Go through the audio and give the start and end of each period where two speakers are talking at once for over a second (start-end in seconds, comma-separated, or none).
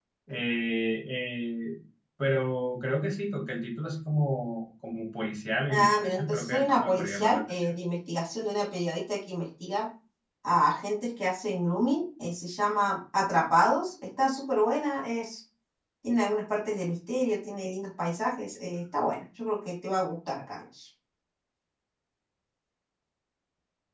5.7-7.7